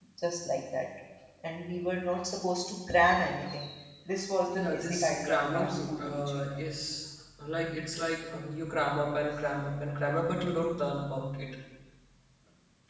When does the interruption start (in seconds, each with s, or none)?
4.5 s